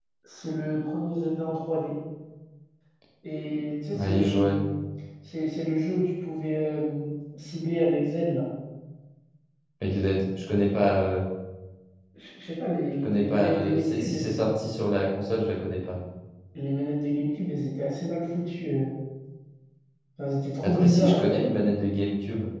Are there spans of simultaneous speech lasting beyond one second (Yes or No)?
Yes